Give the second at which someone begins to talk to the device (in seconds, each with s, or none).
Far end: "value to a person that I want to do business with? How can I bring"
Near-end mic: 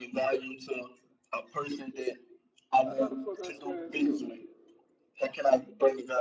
2.8 s